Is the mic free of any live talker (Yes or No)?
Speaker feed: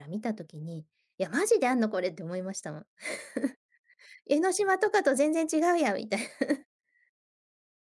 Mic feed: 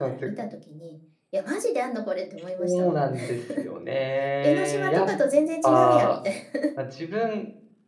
No